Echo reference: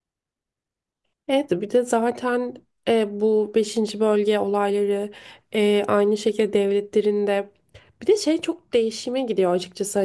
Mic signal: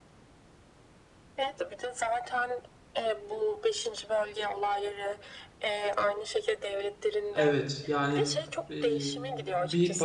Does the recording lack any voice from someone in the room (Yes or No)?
No